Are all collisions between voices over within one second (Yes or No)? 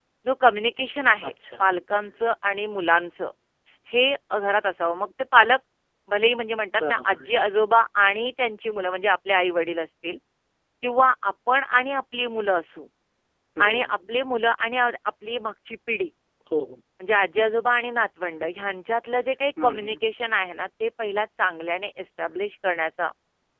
Yes